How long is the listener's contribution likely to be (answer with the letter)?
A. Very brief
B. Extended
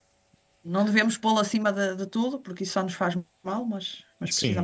B